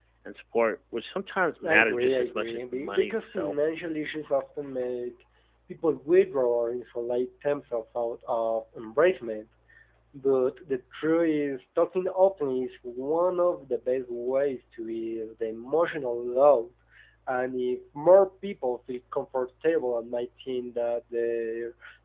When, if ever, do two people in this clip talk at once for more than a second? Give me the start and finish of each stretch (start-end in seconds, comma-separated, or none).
1.6-3.5